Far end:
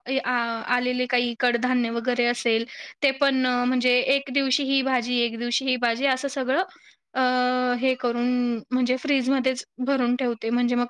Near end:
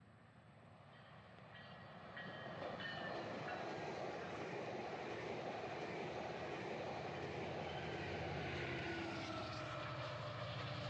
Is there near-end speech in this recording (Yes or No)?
No